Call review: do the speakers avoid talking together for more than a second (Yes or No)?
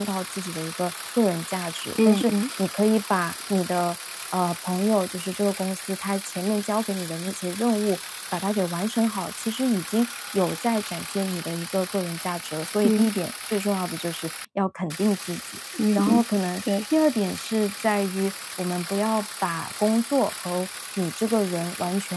Yes